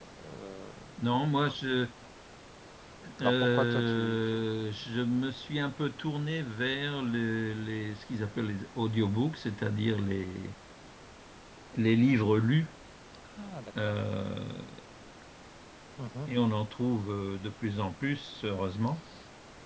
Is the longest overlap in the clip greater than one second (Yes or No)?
Yes